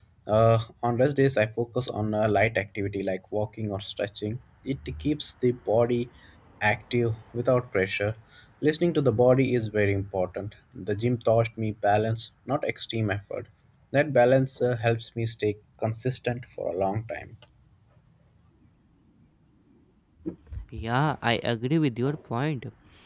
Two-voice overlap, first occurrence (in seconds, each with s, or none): none